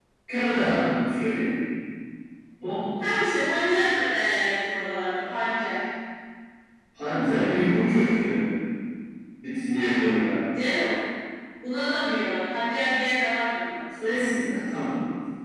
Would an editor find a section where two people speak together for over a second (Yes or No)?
No